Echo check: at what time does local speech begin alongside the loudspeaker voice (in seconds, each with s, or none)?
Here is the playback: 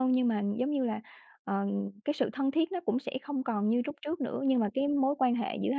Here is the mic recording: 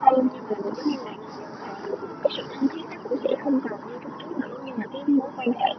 none